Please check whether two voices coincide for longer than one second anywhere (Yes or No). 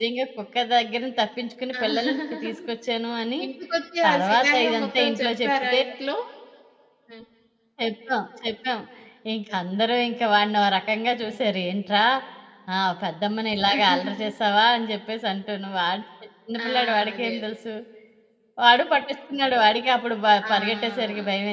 Yes